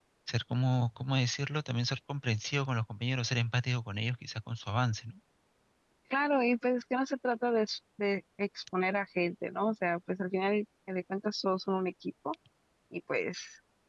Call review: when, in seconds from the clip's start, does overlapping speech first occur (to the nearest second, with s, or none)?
none